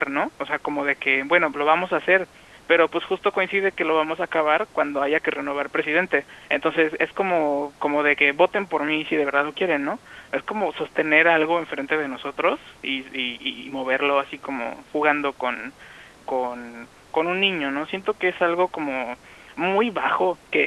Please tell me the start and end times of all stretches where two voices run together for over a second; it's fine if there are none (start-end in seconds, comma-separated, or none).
none